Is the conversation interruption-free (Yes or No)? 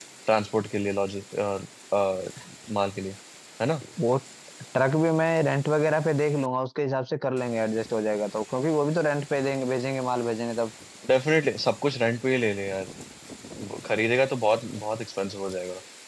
Yes